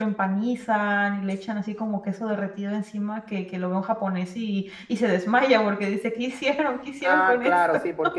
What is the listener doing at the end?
taking over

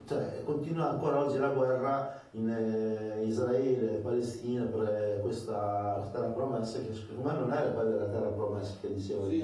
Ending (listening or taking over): taking over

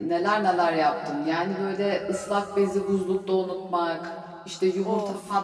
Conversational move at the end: listening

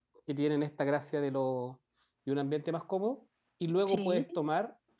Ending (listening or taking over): listening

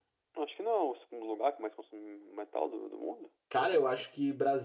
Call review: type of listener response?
taking over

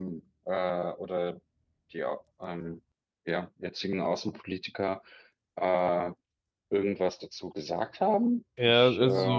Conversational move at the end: taking over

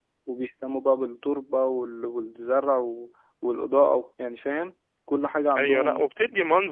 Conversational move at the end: taking over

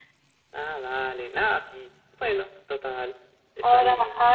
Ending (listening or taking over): taking over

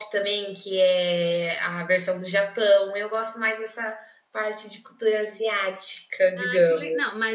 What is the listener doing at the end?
taking over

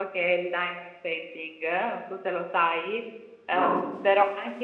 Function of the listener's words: listening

